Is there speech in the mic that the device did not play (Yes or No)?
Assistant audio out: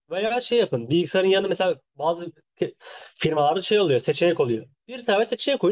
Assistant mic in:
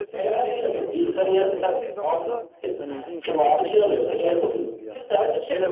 Yes